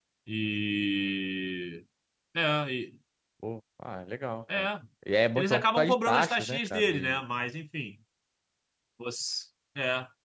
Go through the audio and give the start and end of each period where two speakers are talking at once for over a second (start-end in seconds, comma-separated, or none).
5.4-7.2